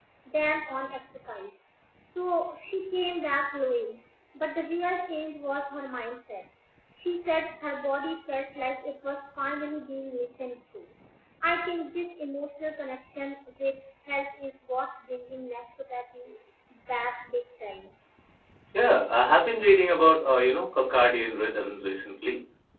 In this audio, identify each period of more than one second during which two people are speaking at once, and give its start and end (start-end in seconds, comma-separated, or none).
none